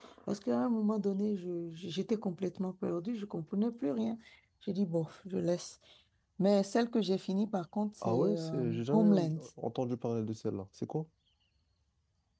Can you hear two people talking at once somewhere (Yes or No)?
Yes